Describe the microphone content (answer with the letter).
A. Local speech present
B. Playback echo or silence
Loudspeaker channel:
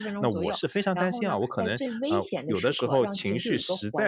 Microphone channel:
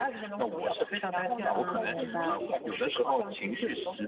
A